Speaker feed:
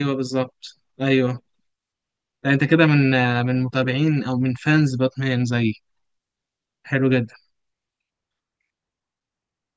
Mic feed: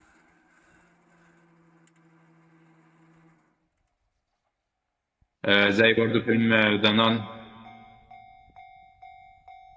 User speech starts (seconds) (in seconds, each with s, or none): 5.4 s